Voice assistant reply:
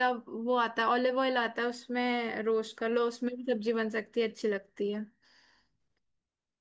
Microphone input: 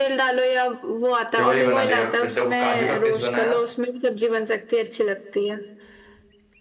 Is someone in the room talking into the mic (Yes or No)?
Yes